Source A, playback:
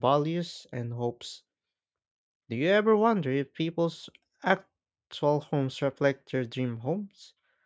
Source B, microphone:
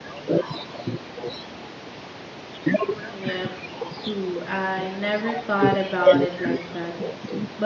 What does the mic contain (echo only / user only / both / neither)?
both